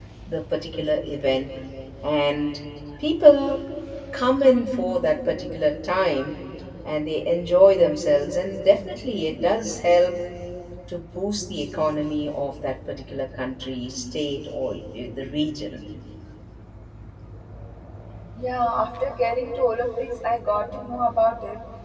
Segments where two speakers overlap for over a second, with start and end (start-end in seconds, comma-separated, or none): none